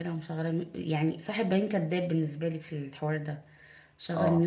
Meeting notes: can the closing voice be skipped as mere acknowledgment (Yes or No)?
Yes